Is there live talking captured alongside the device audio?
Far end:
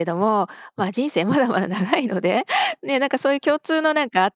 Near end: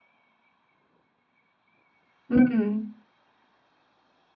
Yes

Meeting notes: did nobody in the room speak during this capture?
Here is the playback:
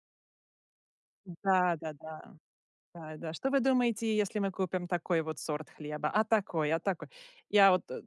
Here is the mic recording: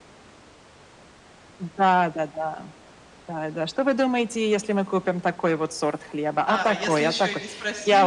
No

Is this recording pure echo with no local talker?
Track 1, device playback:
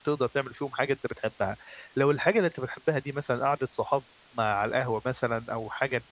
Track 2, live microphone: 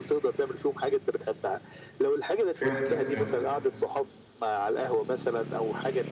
No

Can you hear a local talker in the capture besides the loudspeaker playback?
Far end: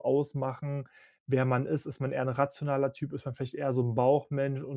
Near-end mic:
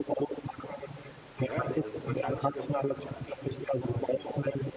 Yes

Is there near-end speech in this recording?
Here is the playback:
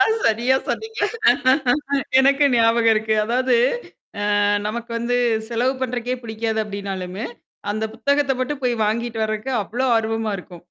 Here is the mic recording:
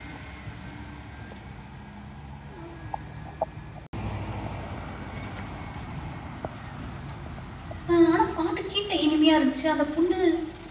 Yes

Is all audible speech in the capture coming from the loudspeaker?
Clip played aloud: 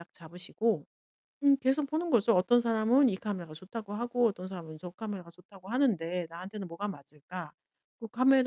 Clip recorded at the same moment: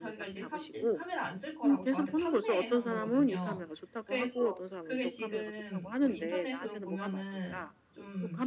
No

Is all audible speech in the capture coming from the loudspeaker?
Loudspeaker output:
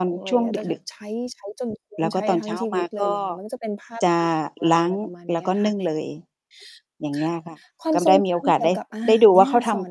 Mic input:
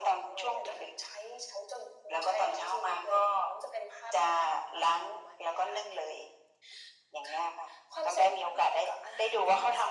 Yes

